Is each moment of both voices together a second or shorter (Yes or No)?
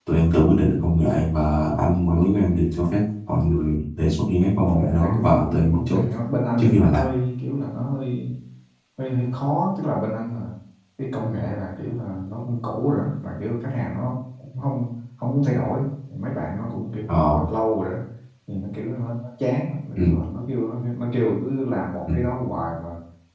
No